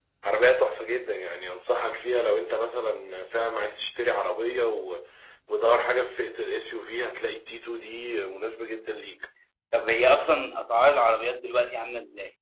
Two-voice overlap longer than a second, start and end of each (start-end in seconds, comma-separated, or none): none